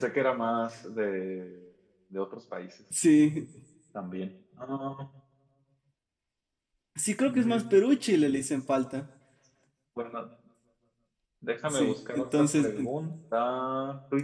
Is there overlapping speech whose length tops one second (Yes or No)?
Yes